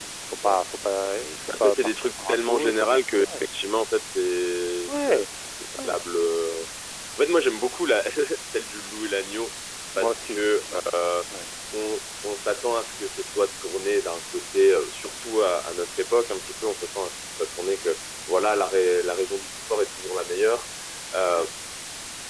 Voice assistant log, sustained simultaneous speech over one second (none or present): present